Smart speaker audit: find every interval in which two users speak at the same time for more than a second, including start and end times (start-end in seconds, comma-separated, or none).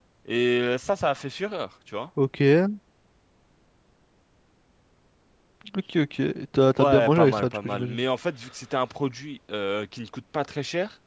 6.8-8.0